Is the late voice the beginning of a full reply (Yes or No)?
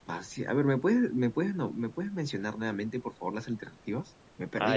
Yes